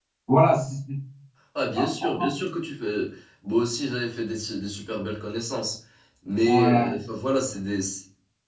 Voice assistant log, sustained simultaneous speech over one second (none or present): none